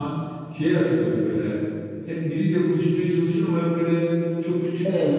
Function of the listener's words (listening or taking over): listening